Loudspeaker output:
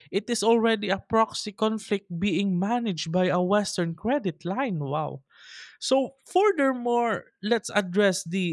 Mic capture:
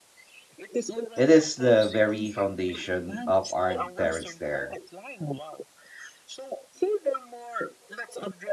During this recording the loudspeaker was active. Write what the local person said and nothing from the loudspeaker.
It is the very foundation of our deterrence there.

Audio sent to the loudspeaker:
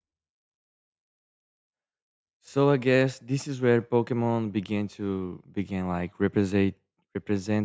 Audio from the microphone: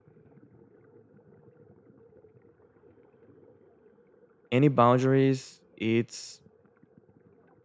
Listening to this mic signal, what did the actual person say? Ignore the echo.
any boundaries, it's

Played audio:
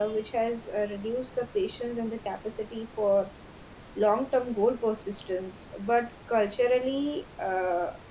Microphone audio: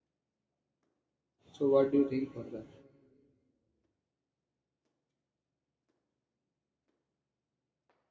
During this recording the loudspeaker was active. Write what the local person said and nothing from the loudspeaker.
So, what do you think further?

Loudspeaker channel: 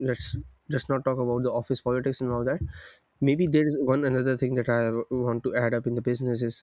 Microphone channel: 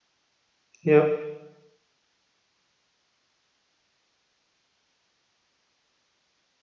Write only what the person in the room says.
Yeah.

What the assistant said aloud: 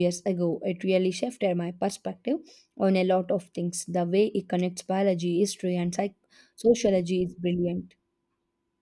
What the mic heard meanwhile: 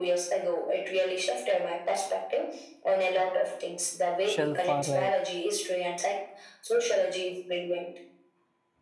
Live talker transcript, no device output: shelf or a

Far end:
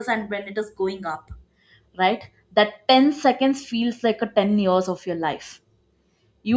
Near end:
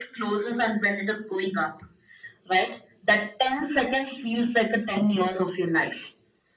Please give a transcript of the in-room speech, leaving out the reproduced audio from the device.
none

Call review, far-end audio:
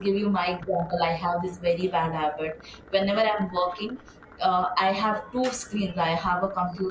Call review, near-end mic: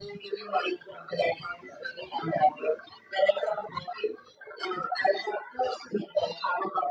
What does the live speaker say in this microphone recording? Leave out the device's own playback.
none

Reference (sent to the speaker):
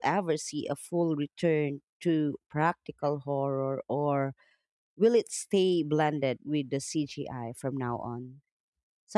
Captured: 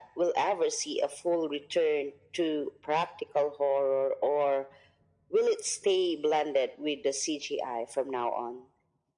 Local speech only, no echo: none

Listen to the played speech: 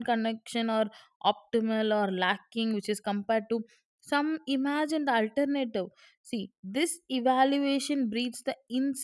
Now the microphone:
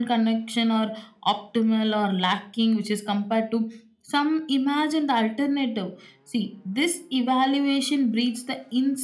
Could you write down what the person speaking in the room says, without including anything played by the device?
none

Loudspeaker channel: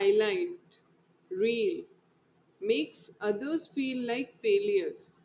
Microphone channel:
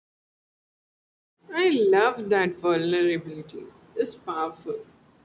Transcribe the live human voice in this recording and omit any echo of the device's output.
I love that vulnerability. It's powerful.

